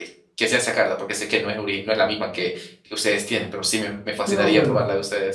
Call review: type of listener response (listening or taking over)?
taking over